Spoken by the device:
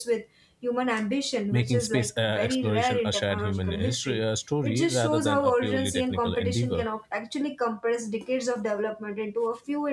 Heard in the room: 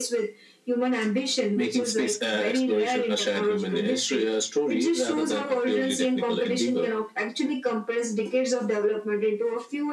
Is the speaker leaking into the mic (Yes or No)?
Yes